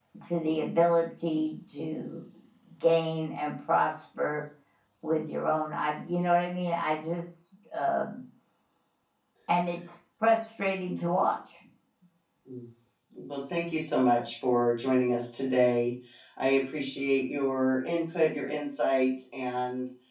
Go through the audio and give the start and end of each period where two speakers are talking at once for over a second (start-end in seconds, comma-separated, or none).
none